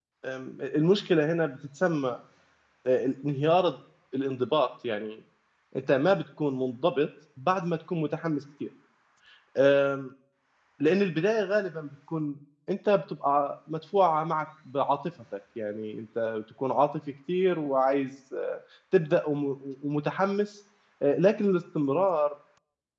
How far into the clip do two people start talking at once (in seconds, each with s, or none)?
none